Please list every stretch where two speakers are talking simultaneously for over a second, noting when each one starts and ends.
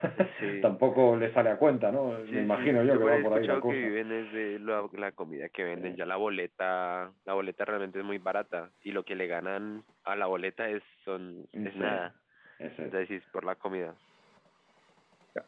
2.2-3.9

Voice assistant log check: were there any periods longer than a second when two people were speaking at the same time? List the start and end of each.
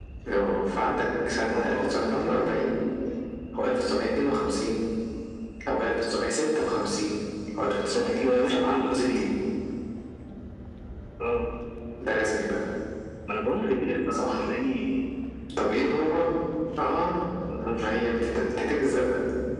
7.9-9.2

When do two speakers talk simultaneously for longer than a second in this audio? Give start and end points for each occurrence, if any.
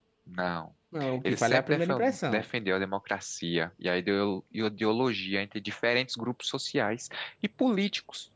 1.2-2.5

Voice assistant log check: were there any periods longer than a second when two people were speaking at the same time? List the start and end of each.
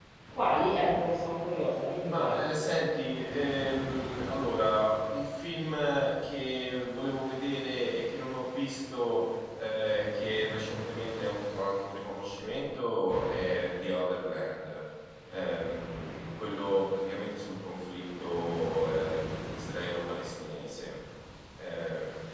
none

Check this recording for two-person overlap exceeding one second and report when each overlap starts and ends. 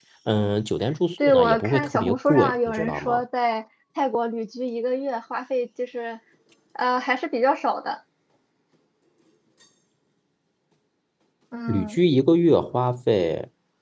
1.2-3.2

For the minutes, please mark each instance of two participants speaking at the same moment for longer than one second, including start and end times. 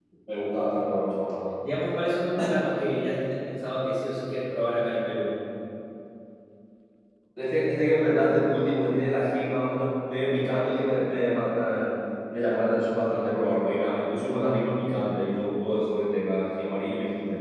none

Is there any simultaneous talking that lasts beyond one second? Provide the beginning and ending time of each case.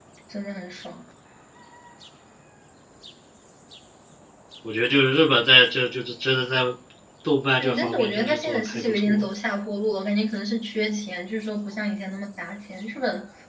7.6-9.2

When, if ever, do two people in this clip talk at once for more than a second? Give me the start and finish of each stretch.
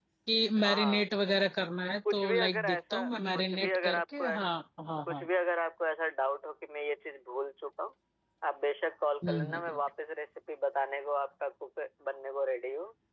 2.1-4.2

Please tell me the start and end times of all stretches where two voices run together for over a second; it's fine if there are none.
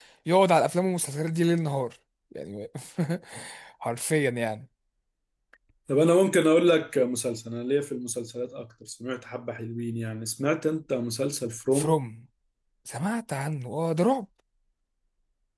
none

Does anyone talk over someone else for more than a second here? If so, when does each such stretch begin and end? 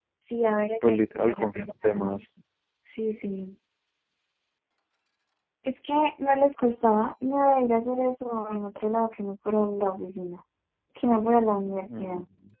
0.8-2.1

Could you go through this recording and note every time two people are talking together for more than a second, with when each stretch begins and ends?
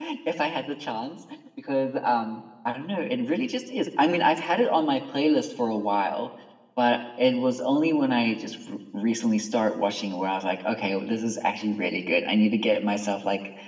none

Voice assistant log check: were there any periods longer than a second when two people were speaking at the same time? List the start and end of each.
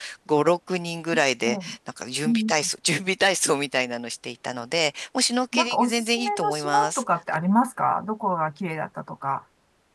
5.5-7.4

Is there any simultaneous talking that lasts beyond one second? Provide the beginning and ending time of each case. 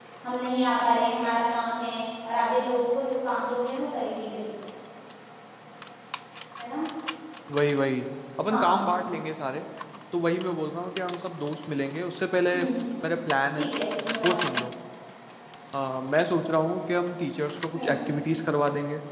none

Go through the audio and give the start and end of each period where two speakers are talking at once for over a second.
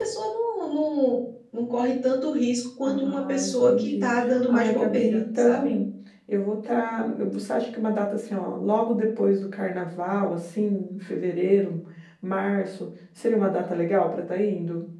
2.9-4.1, 4.5-5.8

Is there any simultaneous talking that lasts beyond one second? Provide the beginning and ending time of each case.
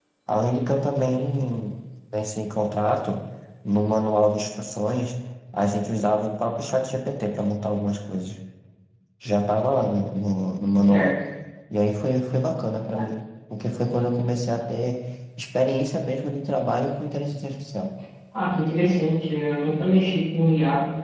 none

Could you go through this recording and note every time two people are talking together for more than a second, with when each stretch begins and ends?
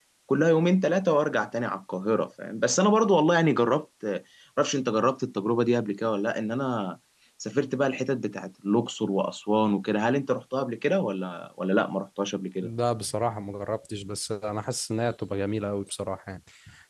none

